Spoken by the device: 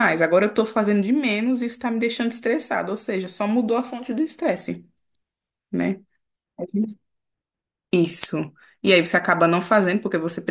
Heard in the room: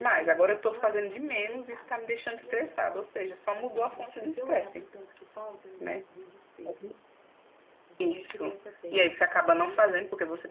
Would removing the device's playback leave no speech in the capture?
No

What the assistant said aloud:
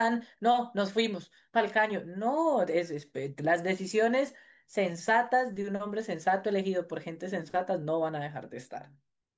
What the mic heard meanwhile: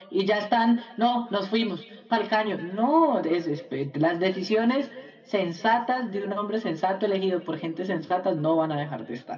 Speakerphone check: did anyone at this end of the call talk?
No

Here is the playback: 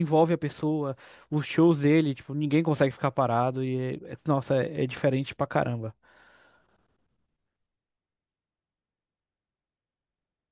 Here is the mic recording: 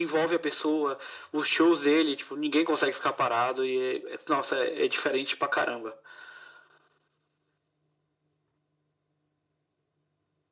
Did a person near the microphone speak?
No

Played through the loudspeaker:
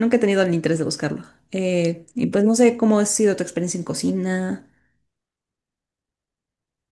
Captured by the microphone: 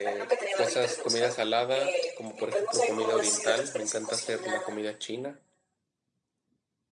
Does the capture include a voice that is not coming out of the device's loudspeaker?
Yes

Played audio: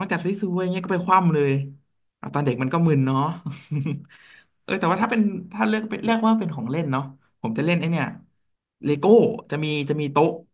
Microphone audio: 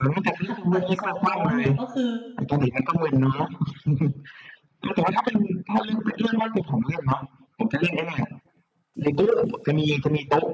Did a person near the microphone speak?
Yes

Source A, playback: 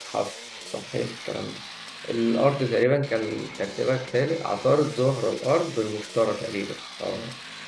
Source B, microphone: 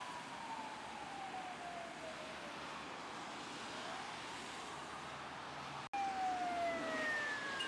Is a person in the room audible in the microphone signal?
No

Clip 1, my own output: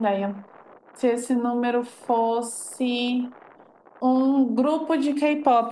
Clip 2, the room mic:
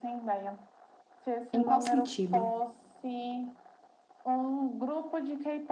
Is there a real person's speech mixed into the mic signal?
Yes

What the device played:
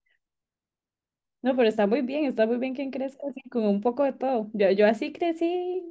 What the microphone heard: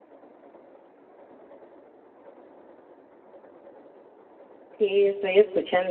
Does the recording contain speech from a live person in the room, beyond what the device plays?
Yes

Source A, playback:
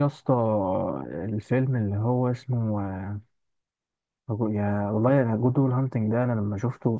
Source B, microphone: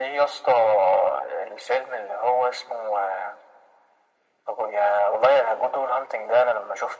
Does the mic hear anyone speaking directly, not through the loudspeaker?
No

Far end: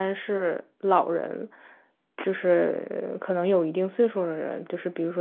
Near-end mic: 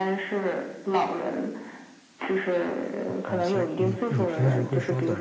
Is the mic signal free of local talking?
No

